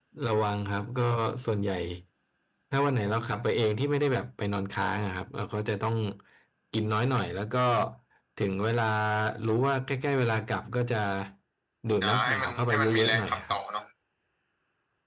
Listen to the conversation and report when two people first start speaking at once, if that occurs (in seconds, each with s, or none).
12.0 s